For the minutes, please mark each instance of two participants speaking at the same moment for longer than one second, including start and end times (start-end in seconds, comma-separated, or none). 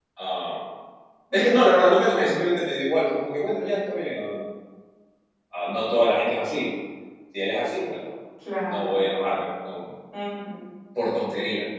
none